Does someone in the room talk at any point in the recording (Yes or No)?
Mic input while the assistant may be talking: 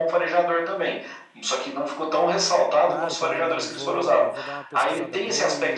Yes